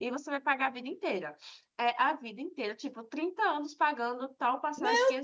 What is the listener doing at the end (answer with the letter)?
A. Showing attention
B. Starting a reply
B